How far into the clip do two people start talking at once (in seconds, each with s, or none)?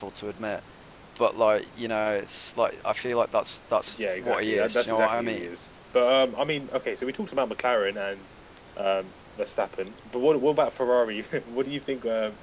4.0 s